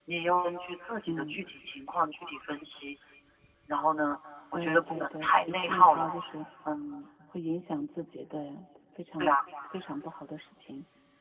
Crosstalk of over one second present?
Yes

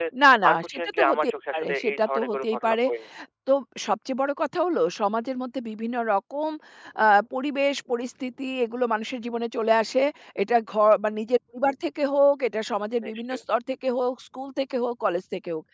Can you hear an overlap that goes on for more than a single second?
Yes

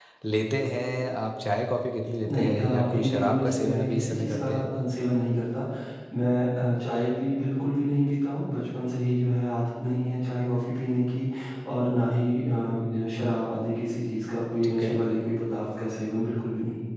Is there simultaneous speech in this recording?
Yes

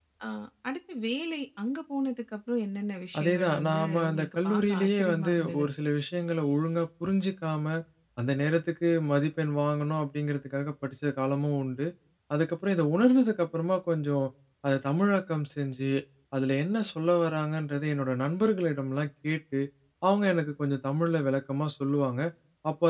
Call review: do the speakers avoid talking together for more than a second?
No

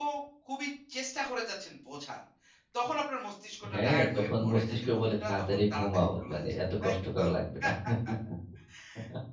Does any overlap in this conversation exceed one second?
Yes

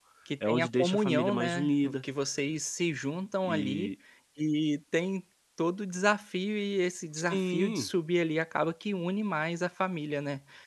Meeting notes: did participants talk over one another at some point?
Yes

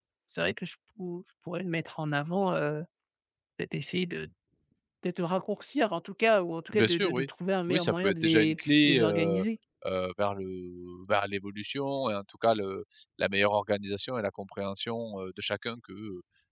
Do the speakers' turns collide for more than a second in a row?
Yes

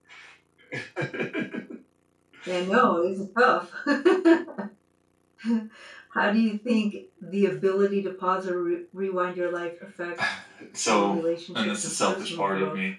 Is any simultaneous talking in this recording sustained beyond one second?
Yes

